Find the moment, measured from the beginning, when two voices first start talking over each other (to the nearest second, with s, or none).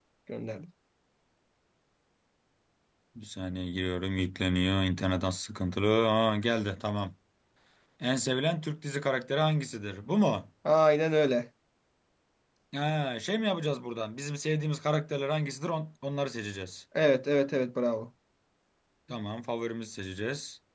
none